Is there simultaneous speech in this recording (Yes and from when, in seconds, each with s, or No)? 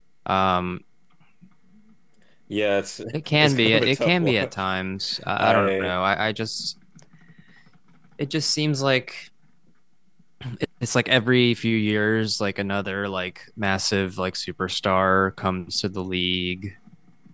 Yes, from 3.1 s